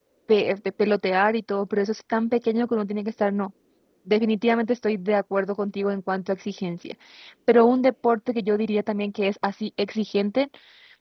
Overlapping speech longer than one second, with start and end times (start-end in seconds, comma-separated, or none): none